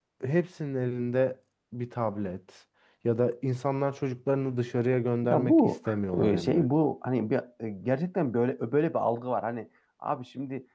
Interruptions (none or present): present